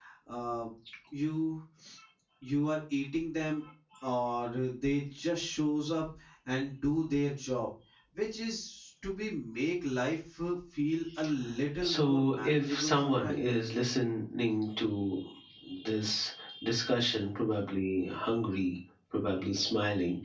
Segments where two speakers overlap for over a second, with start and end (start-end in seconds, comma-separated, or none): 11.8-13.4